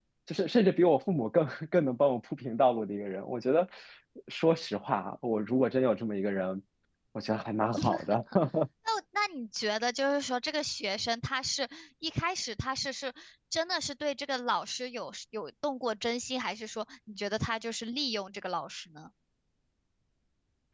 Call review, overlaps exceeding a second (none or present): none